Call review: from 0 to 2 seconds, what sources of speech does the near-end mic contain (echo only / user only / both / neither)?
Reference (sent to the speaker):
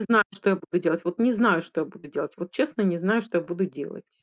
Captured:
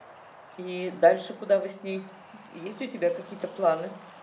user only